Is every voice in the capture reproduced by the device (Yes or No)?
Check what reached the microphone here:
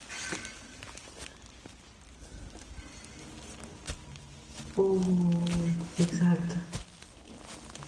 No